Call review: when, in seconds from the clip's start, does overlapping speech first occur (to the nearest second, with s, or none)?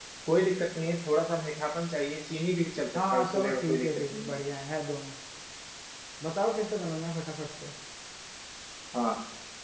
3 s